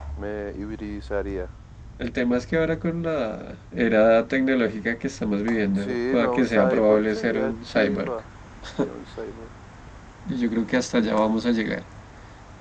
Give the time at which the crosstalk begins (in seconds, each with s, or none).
5.7 s